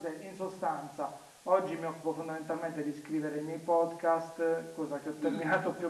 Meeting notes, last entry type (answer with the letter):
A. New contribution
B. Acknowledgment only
B